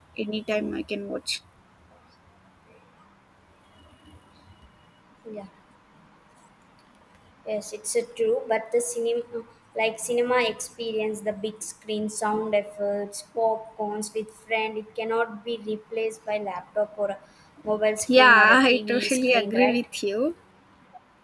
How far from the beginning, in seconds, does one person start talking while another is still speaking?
18.2 s

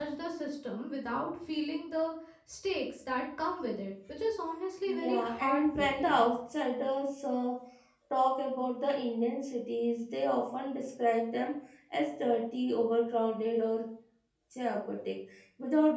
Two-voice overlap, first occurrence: 4.9 s

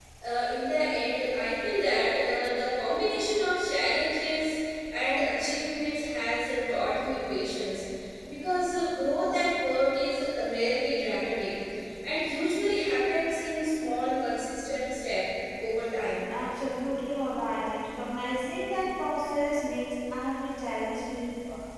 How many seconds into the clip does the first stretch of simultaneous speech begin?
none

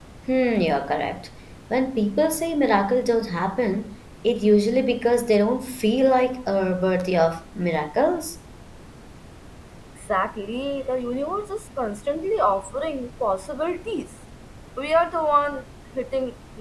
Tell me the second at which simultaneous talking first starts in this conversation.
none

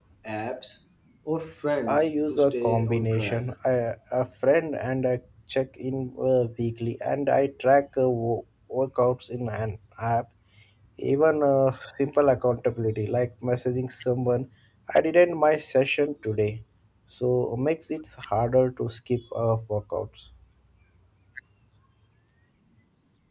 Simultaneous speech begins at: 1.9 s

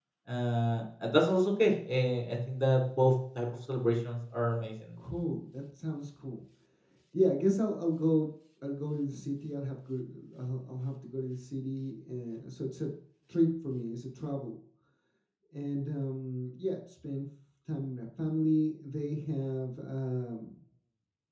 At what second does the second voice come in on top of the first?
none

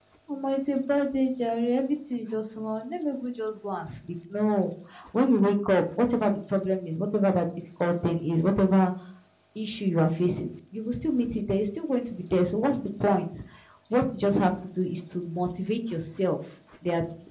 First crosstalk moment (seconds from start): none

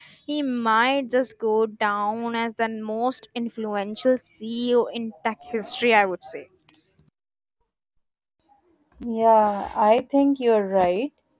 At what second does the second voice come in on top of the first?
none

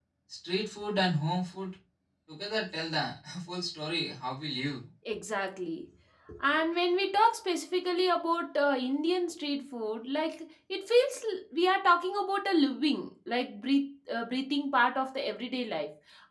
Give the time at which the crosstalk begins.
none

